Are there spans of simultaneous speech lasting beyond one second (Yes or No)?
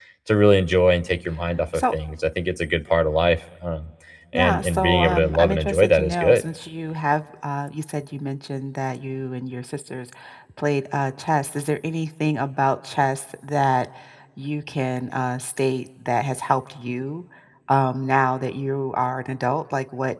Yes